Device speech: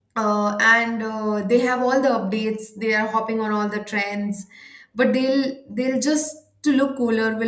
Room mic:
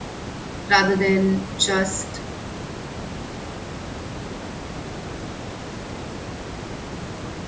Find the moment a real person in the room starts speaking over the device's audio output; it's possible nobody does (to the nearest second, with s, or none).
1 s